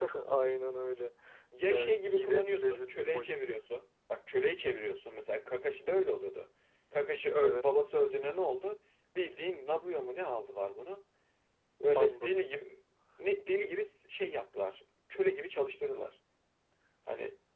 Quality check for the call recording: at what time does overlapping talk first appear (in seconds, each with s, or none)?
1.7 s